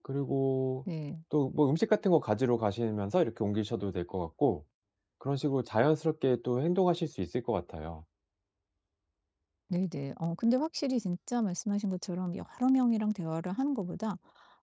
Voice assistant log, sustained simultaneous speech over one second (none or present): none